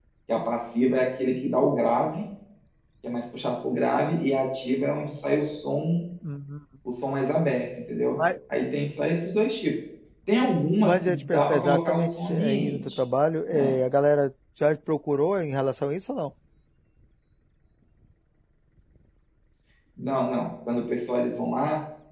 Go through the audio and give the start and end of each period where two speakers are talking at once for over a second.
10.8-12.9

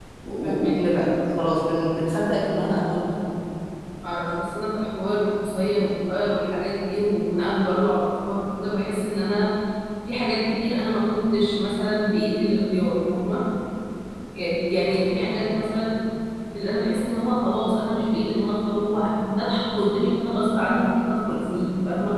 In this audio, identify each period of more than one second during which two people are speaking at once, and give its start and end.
none

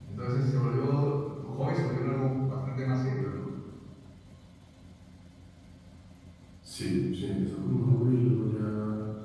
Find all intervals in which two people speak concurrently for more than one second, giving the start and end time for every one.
none

